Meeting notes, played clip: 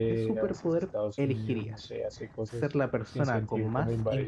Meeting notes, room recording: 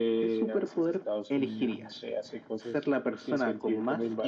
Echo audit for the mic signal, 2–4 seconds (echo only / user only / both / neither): echo only